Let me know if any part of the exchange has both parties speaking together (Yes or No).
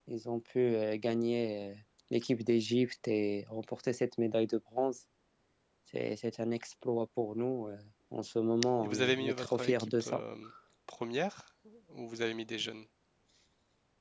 Yes